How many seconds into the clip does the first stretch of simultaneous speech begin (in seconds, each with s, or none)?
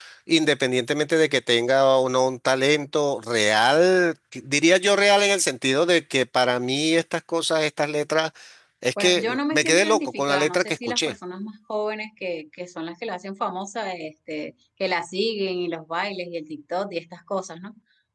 9.0 s